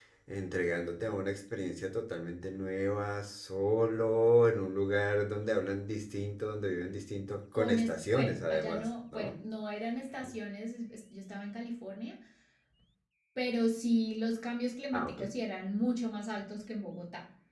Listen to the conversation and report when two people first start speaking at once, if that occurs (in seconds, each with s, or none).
7.5 s